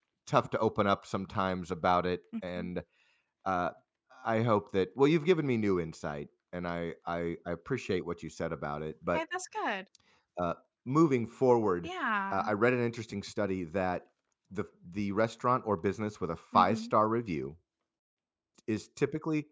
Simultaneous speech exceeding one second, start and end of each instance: none

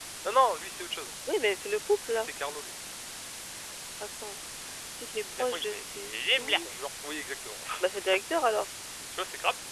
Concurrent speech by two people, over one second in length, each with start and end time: 5.2-6.7

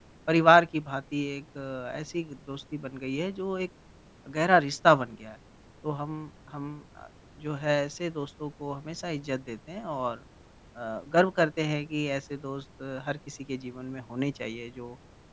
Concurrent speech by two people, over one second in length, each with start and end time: none

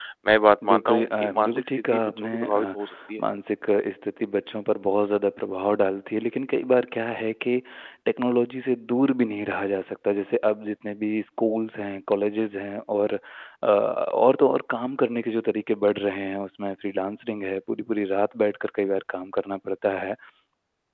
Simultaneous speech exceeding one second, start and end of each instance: 0.6-2.6

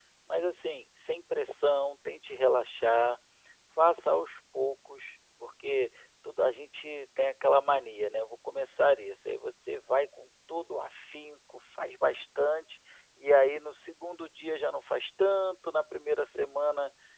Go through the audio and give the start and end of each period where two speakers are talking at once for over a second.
none

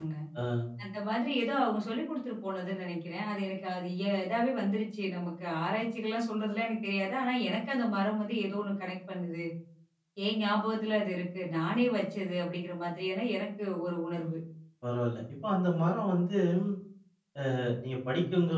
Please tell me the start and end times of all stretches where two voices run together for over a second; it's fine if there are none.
none

